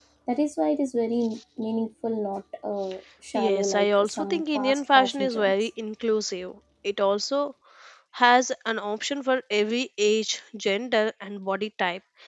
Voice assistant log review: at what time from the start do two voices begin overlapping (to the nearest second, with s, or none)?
3 s